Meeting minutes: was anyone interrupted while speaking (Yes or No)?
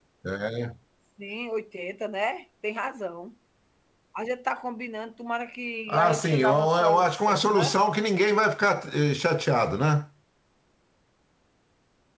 Yes